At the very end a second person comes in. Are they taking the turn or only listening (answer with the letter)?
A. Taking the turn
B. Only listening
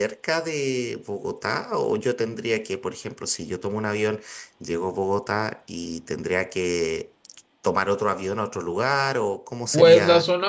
A